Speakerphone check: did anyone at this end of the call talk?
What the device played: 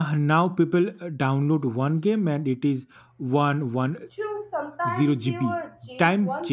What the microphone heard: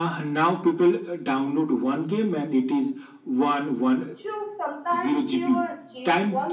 No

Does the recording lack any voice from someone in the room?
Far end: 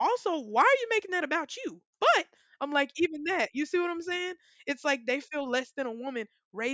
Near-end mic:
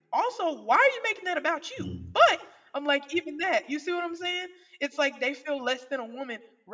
No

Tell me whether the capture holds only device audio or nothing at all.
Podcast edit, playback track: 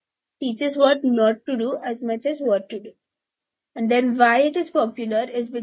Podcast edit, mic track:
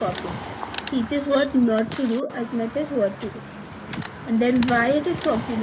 Yes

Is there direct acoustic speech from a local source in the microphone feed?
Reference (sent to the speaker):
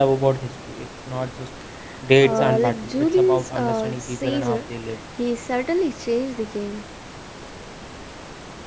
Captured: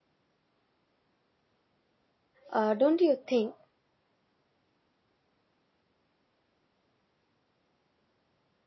Yes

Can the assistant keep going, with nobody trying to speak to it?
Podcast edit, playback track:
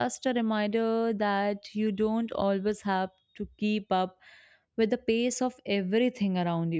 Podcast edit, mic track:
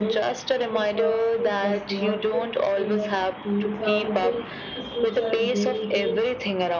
No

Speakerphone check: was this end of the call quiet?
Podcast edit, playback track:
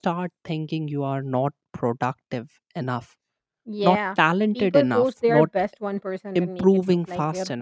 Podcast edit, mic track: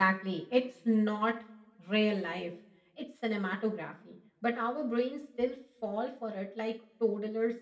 No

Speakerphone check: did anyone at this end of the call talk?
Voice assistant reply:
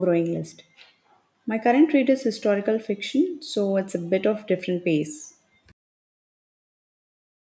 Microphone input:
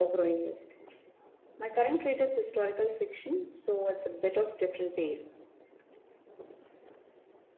No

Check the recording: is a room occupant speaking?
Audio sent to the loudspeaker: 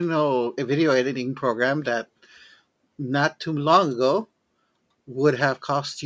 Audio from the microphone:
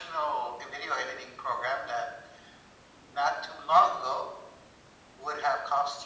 No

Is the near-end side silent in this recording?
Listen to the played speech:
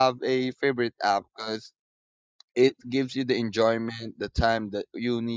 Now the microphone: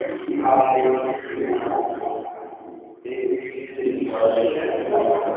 No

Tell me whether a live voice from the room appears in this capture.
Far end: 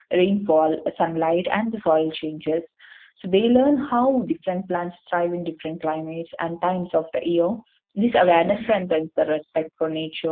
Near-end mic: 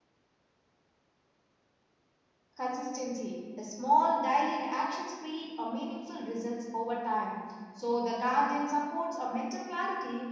Yes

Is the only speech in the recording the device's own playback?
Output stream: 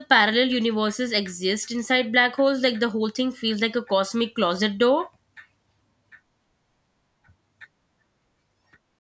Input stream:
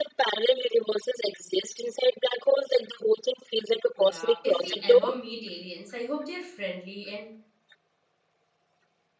No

